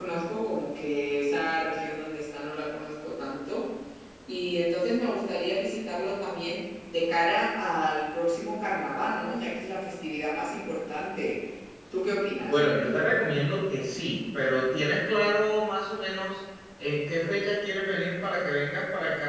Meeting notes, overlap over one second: none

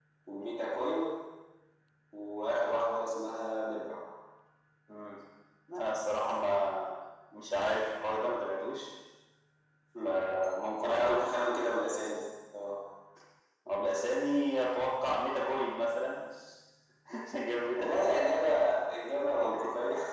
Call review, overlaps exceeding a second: none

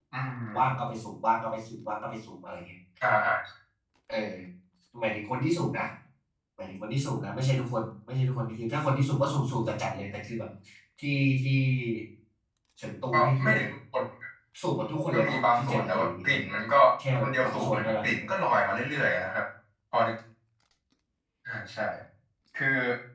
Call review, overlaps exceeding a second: present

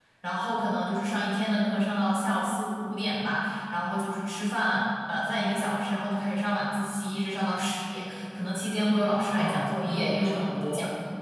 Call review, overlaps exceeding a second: present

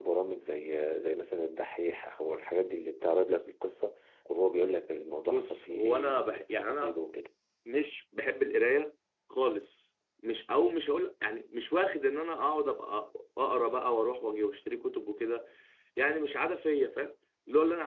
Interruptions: present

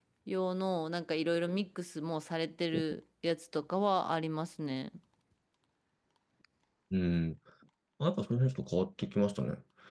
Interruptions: none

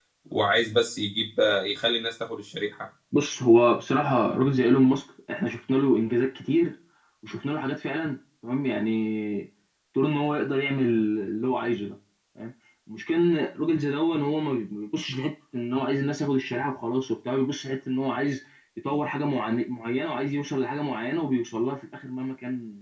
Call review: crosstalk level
none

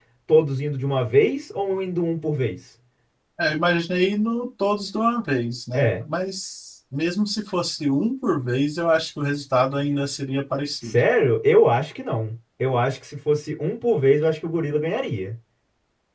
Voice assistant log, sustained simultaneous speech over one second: none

